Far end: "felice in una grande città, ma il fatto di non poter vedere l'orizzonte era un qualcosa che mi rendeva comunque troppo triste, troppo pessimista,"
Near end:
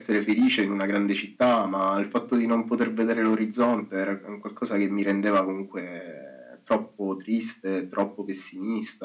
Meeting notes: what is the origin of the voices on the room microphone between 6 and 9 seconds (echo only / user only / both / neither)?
echo only